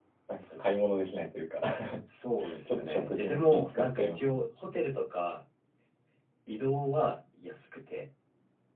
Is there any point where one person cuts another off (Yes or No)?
Yes